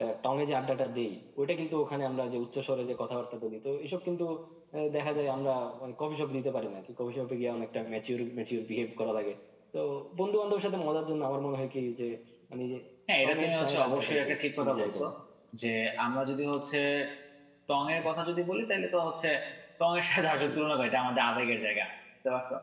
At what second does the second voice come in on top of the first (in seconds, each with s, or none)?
13.2 s